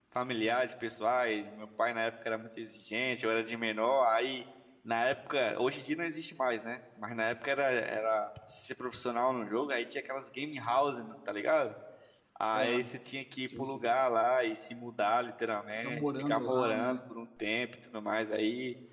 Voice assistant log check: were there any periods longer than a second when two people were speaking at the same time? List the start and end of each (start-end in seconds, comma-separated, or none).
15.8-17.0